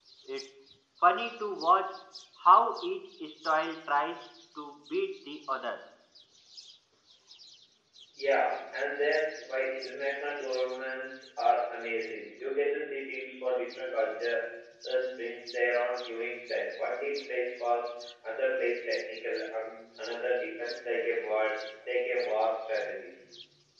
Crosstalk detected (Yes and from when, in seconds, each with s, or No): No